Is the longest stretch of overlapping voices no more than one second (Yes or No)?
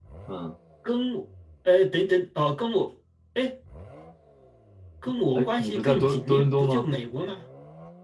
No